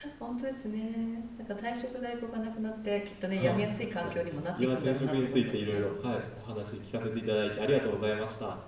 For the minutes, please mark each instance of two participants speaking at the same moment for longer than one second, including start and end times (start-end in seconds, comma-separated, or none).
3.4-5.8